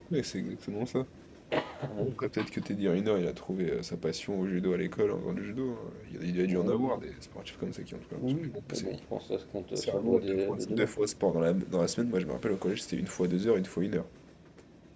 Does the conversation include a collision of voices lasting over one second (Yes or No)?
Yes